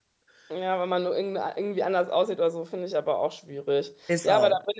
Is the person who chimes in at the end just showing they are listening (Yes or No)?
Yes